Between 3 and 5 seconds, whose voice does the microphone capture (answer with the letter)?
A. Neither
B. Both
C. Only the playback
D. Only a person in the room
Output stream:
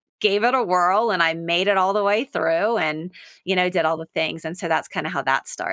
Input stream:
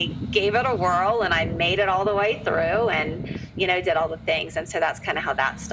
C